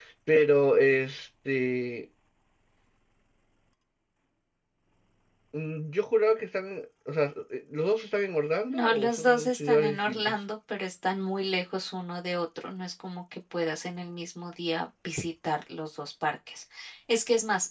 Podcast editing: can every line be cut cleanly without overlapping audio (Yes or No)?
No